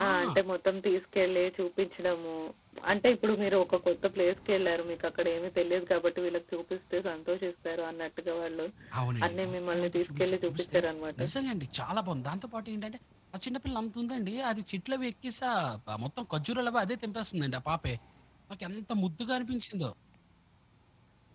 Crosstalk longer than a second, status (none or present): present